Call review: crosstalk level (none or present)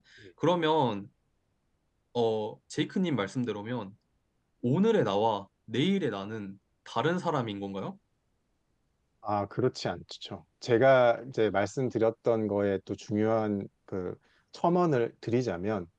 none